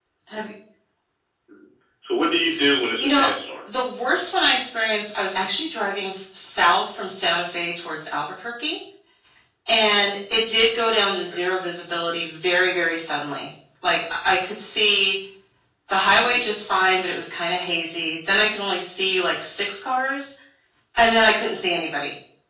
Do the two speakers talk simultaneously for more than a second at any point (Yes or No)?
No